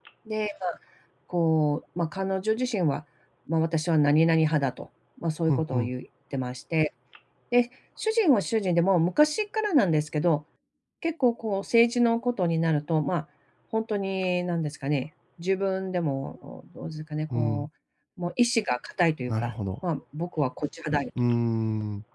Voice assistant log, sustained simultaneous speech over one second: none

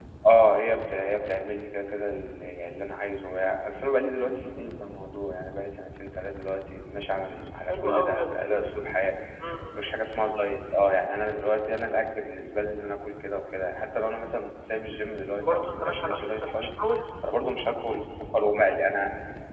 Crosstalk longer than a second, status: present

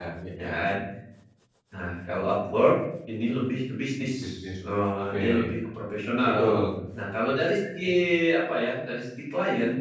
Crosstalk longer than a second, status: none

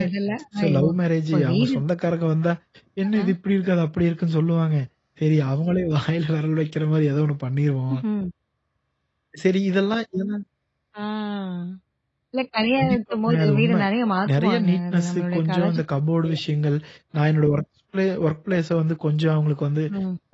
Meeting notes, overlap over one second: present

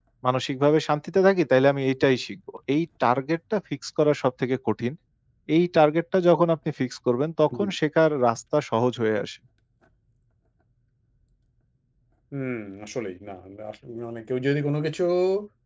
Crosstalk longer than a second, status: none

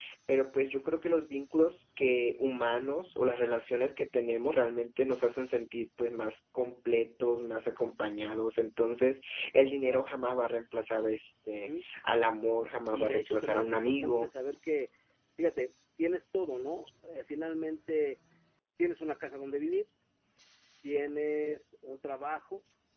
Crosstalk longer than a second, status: present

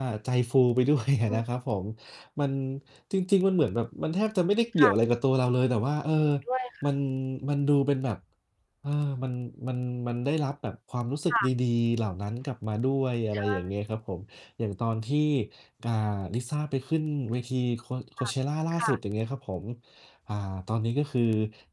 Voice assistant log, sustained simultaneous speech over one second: none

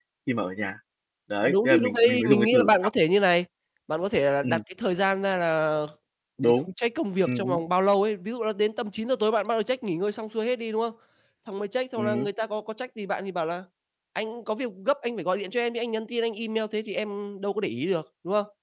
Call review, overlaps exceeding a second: present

